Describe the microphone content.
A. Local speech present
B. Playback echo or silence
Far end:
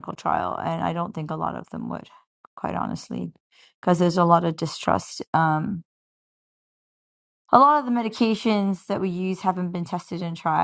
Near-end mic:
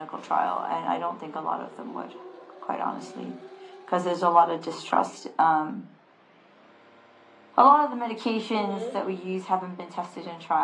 A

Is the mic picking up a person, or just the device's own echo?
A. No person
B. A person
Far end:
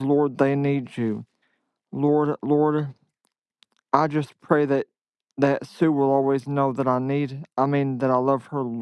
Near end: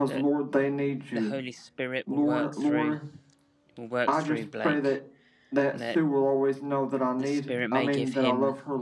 B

